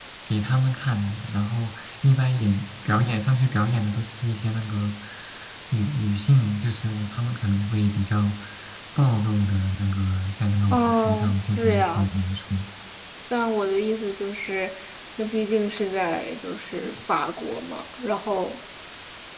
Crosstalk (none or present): present